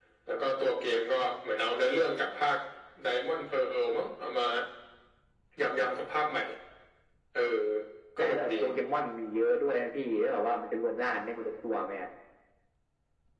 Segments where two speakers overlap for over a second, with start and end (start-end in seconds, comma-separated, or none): none